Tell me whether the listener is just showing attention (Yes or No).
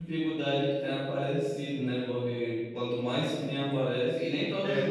Yes